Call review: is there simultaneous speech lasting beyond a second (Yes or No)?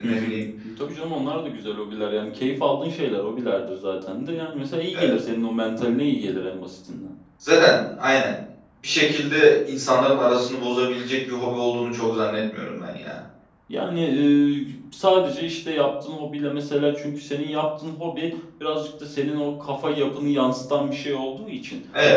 No